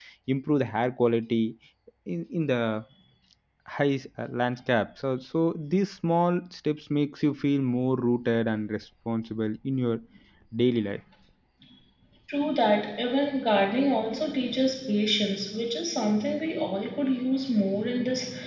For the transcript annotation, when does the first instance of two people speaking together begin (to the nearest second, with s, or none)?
none